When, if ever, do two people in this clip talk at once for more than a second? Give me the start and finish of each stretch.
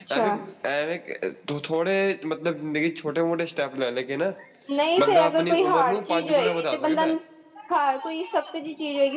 5.0-7.0

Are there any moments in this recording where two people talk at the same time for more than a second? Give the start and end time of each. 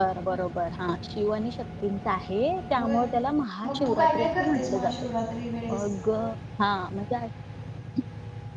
3.7-5.1

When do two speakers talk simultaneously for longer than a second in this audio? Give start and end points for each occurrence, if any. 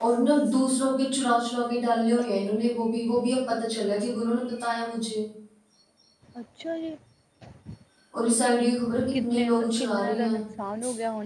9.0-10.3

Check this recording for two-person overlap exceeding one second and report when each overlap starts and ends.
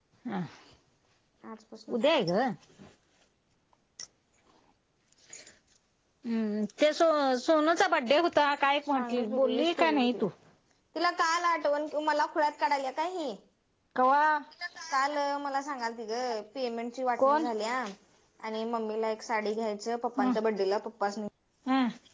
8.9-10.3

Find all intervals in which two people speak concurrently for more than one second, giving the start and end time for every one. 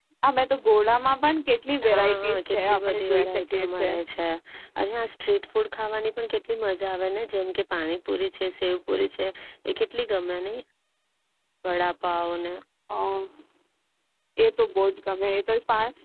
1.9-3.9

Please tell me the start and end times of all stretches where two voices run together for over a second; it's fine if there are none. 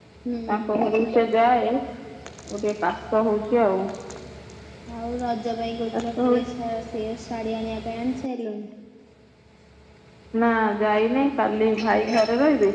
none

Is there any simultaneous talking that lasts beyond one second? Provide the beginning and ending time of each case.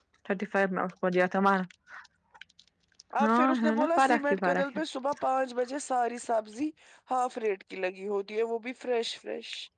3.2-4.6

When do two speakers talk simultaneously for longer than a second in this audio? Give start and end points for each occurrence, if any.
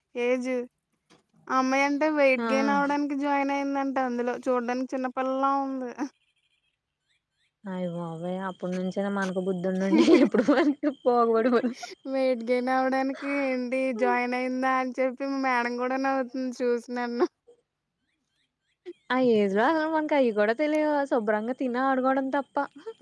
none

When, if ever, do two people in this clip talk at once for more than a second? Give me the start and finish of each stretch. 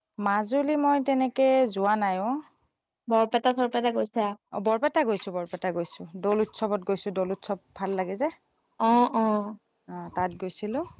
none

